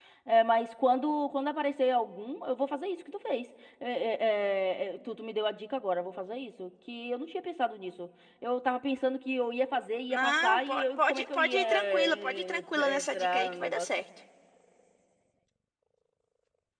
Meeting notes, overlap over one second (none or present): present